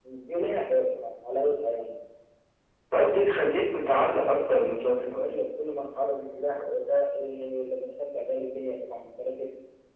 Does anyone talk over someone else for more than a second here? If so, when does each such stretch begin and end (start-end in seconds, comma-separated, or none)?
3.9-5.3